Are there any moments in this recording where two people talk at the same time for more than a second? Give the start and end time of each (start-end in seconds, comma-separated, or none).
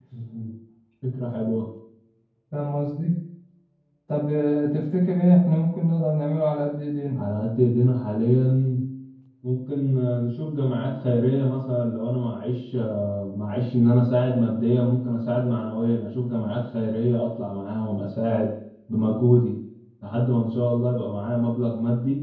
none